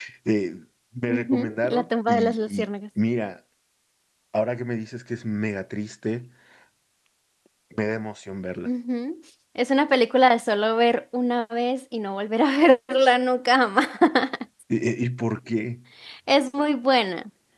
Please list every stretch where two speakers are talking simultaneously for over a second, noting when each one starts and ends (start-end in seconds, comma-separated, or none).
1.1-2.7